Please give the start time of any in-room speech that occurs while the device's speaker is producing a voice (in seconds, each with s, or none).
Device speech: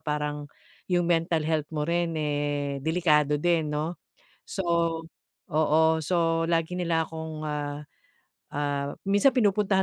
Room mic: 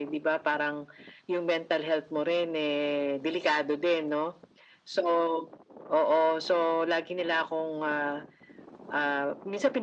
none